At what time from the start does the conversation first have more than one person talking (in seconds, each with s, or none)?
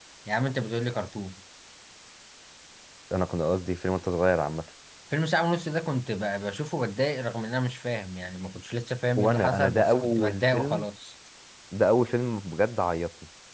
9.2 s